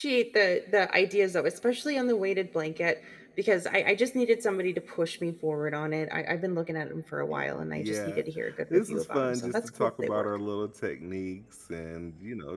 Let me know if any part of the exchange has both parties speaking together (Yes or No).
Yes